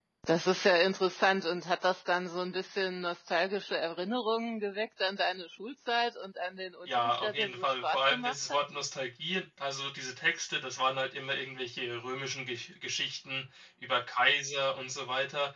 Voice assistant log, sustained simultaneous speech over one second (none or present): present